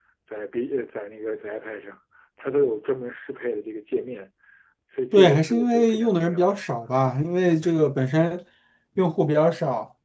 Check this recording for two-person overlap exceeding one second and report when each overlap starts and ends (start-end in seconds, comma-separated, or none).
5.1-6.6